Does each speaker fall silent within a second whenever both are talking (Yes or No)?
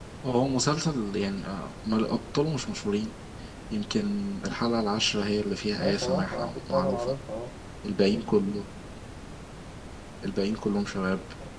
No